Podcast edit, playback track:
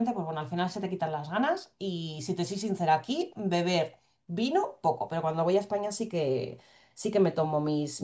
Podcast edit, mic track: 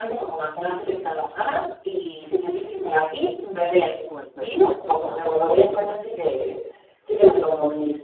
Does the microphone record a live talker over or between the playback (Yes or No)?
Yes